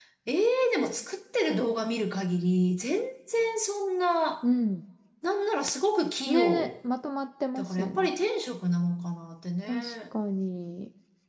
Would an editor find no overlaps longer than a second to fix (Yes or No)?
Yes